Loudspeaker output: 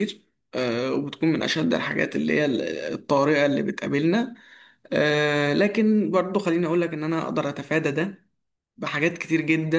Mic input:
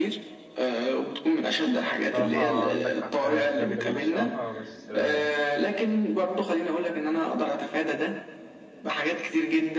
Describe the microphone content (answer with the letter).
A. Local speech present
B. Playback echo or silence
A